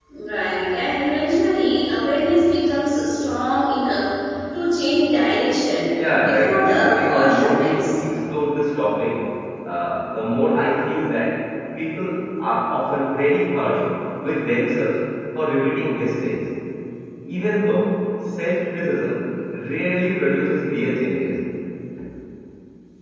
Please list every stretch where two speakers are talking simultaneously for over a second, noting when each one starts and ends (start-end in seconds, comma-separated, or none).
6.0-7.9